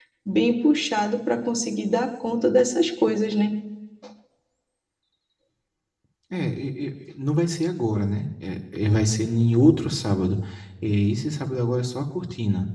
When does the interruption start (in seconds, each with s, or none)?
none